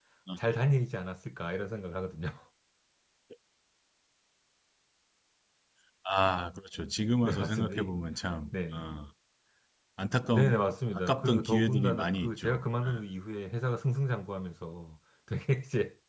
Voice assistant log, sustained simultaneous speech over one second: present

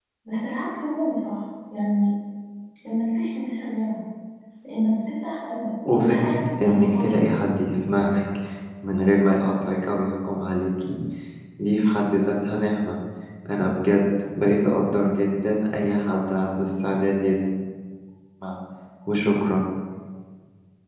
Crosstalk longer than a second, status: present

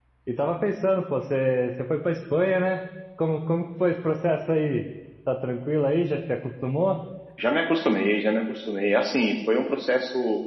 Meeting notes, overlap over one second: none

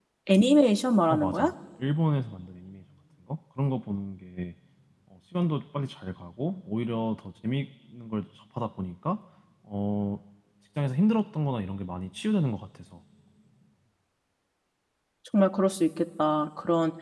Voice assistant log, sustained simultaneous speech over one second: none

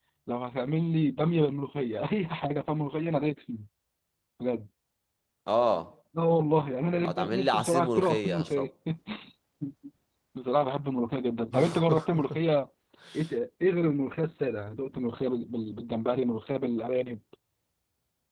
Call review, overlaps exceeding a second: present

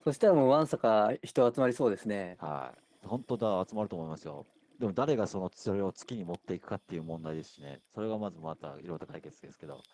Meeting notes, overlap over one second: none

